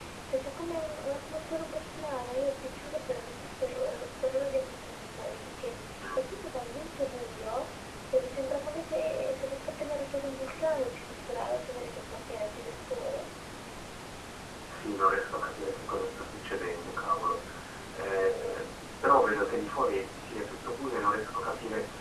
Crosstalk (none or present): none